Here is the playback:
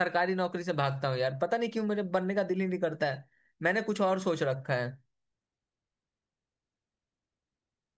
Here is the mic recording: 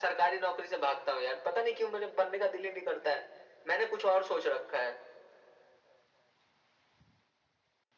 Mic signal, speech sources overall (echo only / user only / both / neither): echo only